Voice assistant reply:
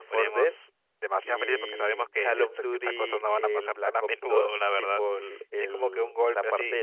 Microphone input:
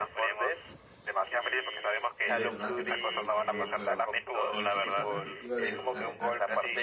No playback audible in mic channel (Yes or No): No